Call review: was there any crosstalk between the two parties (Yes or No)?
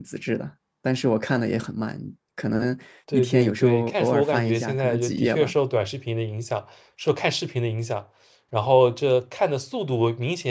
Yes